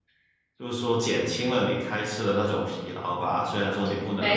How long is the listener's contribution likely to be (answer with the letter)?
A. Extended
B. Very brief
B